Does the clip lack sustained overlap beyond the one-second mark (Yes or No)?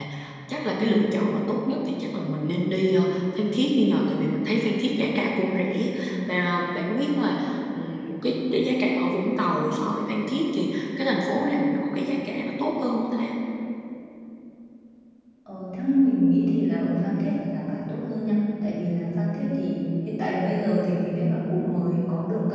Yes